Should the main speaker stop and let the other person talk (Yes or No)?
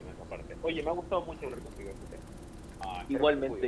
Yes